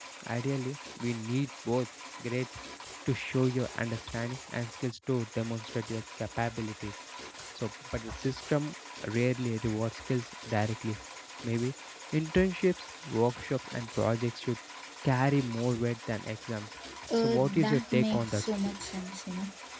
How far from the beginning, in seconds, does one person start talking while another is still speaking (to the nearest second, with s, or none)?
17 s